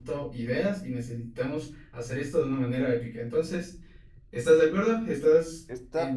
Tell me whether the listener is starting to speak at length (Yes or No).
Yes